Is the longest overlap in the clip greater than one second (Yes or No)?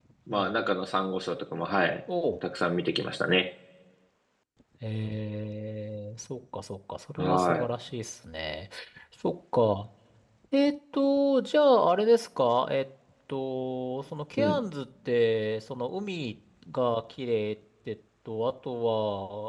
No